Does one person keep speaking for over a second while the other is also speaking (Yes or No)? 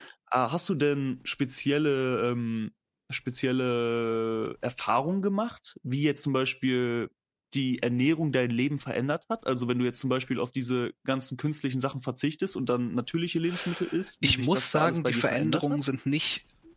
Yes